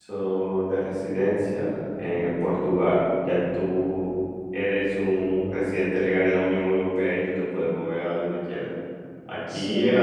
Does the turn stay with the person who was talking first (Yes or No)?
Yes